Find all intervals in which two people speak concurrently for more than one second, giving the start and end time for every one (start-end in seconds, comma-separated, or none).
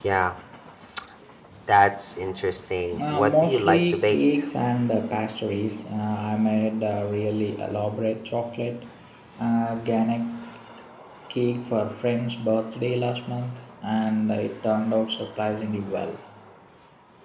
3.1-4.4